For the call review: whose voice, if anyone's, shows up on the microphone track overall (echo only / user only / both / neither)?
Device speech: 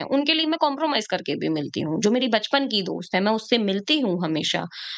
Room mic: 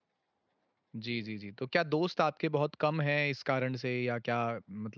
user only